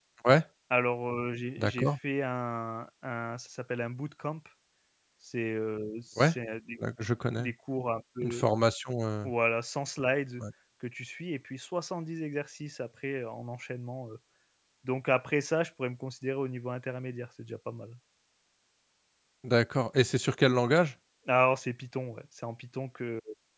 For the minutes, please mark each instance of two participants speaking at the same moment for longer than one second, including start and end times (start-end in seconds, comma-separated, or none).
none